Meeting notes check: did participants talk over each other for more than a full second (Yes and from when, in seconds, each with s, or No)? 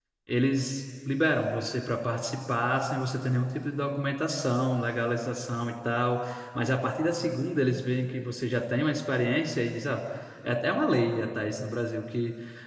No